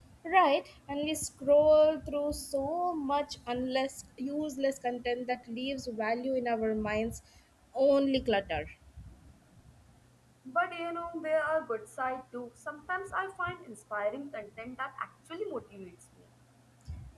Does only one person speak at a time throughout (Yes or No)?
Yes